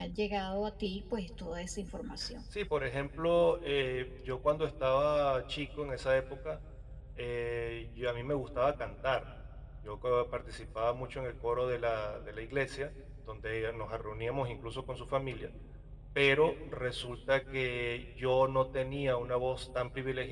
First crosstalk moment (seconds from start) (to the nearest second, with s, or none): none